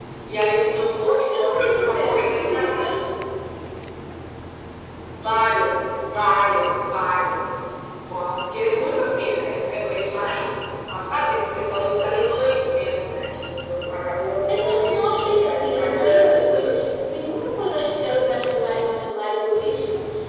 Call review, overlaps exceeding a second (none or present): present